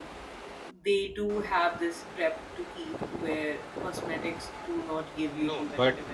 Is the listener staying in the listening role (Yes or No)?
No